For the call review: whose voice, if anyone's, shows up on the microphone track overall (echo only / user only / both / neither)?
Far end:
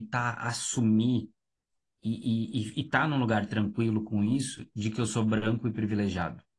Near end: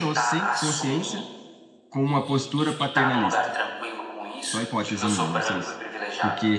both